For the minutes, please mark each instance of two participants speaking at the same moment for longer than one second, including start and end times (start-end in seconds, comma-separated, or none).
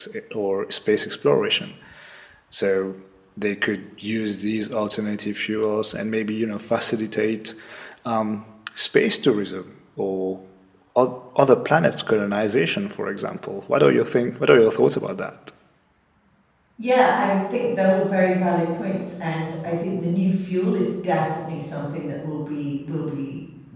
none